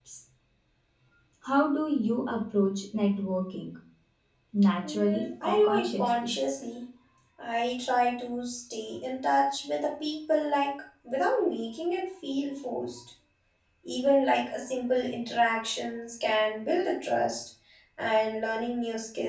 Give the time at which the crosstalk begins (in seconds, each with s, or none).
4.9 s